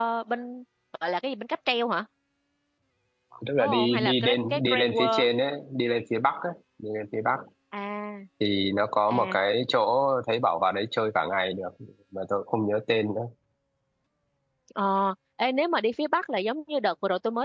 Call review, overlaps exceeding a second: present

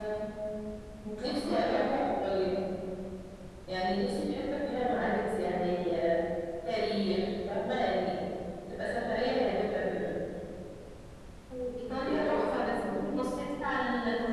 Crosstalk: present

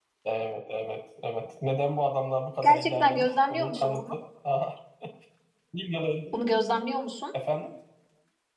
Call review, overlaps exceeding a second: present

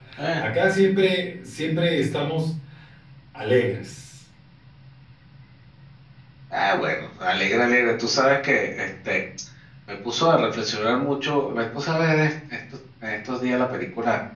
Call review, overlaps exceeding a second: none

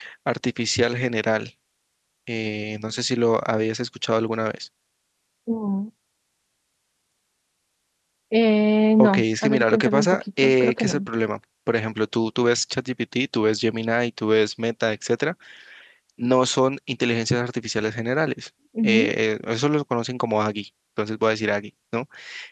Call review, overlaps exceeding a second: present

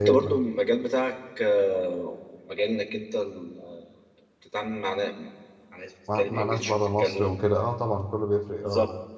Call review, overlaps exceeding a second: present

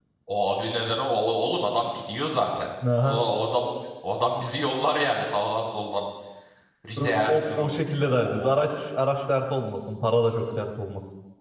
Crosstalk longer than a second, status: present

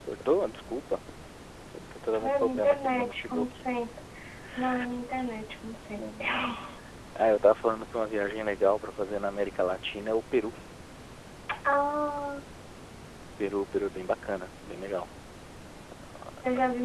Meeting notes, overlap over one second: present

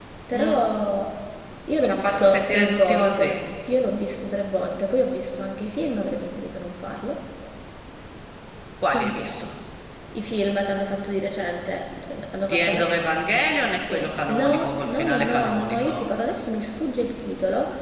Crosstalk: present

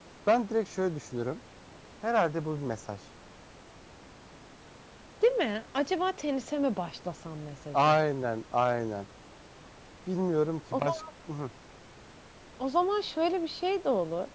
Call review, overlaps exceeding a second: none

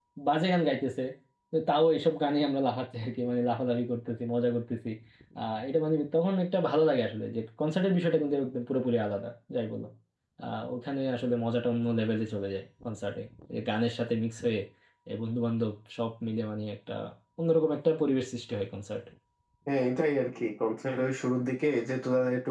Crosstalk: none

